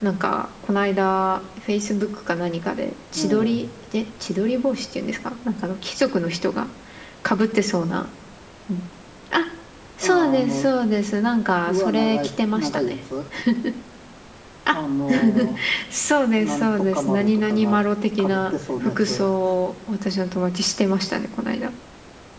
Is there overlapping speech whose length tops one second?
Yes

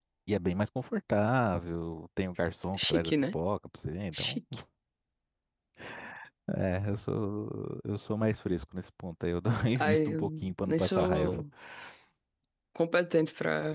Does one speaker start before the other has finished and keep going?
Yes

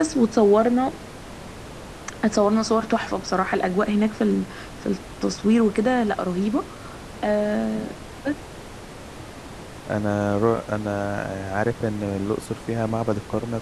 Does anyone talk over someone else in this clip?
No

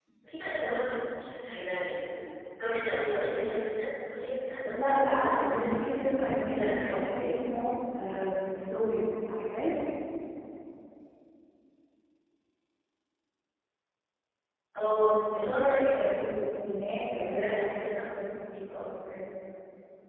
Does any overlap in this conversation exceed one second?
Yes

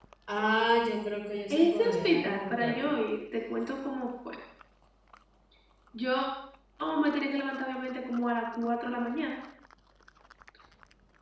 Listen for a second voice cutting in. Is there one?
Yes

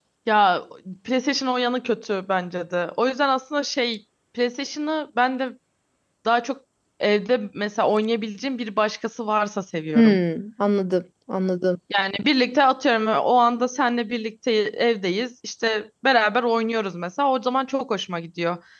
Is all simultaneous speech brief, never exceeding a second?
Yes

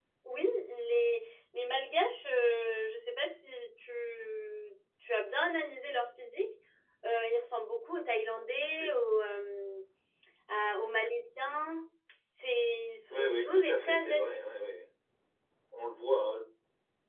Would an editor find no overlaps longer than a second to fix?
No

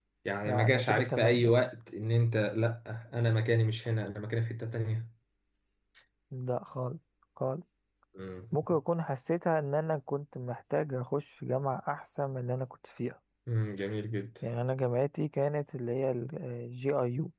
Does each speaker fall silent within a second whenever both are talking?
No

